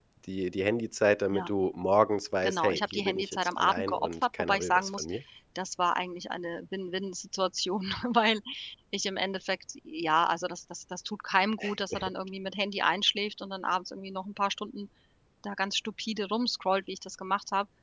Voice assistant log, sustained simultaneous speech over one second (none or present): present